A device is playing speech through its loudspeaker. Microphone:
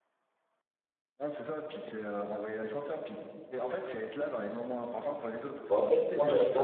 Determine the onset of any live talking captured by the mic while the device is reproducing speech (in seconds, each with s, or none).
5.7 s